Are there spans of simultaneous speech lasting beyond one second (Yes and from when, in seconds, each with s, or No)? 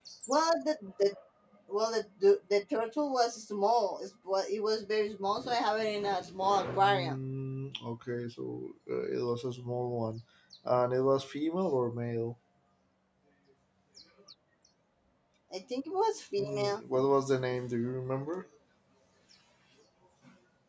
No